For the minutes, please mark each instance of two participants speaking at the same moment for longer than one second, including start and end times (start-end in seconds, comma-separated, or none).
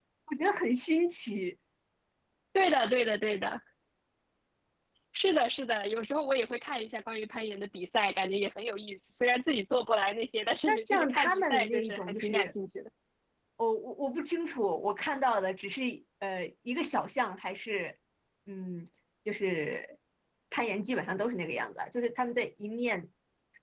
10.6-12.5